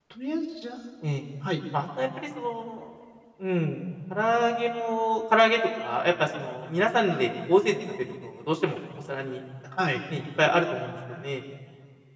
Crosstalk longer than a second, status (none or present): none